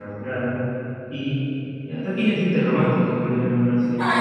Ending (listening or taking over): taking over